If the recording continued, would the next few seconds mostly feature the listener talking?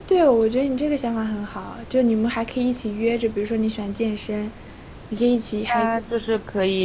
Yes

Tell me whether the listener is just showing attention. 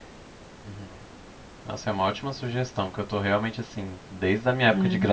Yes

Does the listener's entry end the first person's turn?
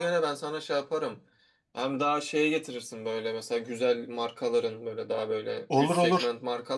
No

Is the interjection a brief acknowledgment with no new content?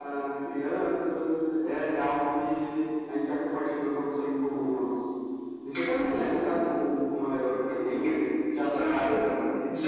No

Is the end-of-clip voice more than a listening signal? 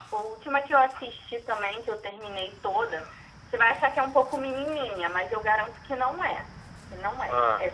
No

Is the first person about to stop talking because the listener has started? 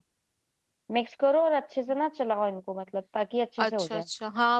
Yes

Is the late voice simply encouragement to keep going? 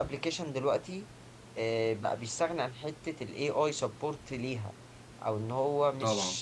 Yes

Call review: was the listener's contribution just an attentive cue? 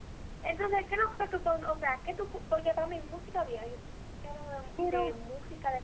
Yes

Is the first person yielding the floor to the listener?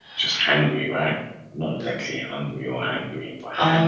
Yes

